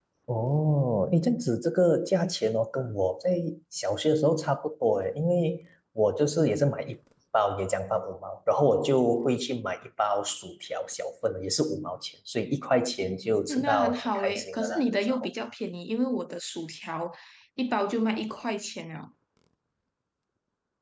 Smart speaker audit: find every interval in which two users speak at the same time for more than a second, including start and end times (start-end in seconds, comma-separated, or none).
13.5-15.3